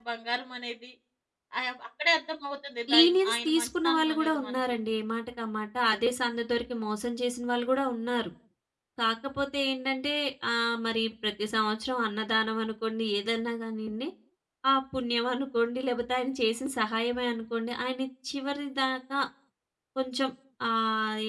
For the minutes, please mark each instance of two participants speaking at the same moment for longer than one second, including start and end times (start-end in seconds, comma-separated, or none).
2.9-4.6